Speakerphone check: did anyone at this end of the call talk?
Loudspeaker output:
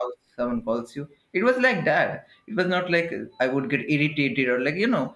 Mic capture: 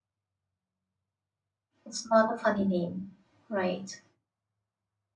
Yes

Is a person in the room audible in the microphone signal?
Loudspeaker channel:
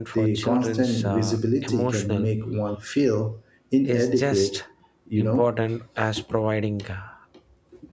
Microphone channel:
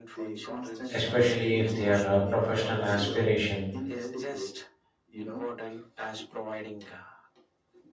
Yes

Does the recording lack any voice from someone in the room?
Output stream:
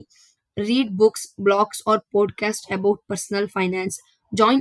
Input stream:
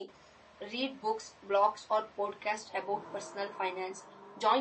Yes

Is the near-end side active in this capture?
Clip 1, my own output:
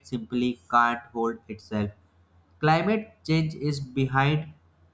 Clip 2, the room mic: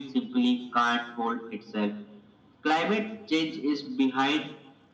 No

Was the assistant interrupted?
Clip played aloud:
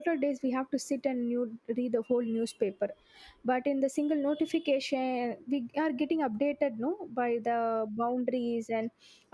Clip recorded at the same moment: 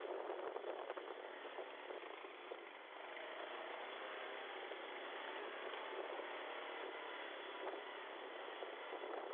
No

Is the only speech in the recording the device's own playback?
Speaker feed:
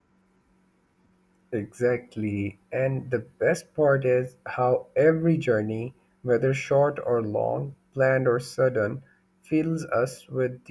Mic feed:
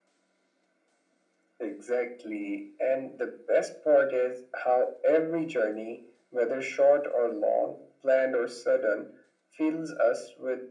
Yes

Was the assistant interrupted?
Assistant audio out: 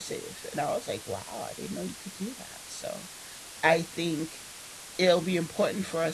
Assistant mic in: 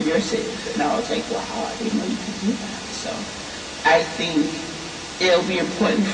No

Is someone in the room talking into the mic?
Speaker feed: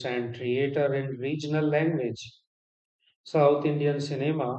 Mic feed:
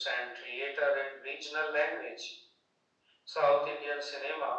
No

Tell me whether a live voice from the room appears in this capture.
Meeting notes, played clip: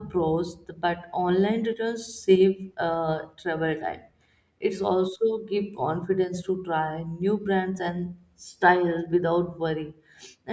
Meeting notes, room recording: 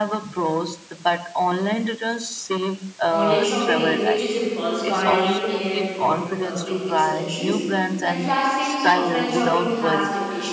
Yes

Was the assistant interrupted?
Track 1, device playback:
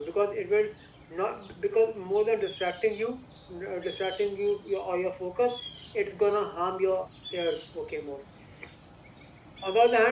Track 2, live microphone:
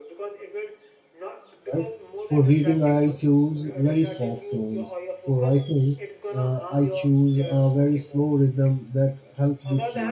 Yes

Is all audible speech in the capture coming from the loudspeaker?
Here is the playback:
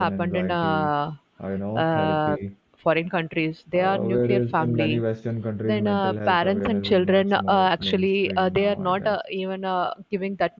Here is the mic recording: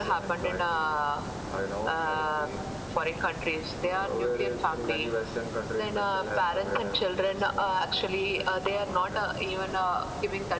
Yes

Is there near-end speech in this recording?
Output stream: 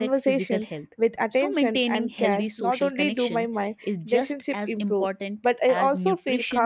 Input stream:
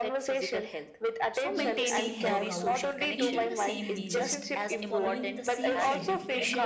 Yes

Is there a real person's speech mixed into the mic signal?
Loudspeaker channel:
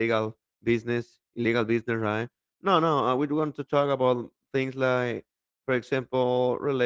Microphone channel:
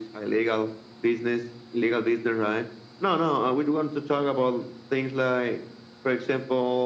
No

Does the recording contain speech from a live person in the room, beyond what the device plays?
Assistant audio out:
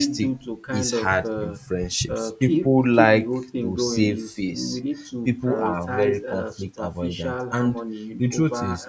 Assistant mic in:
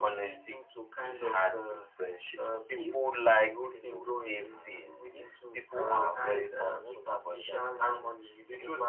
Yes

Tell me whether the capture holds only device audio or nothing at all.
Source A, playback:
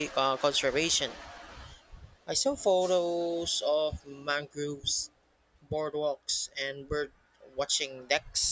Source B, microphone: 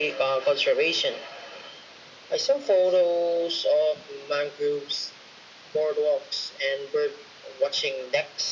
Yes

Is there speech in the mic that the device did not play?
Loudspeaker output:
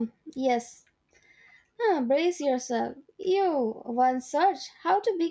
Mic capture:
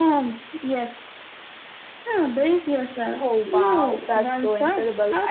Yes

